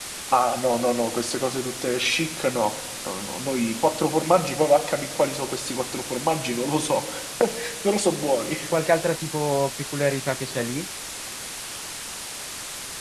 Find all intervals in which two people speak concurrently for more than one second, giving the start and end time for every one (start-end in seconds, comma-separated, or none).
none